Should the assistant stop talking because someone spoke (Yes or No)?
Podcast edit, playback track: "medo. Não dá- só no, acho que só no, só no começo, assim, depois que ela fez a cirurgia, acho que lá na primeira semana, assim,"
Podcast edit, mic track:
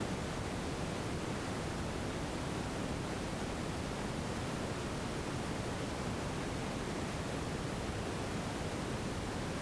No